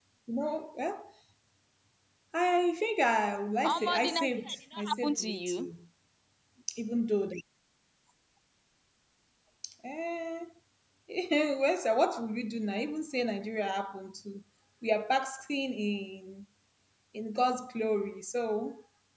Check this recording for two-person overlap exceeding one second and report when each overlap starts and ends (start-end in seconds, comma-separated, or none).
3.7-5.7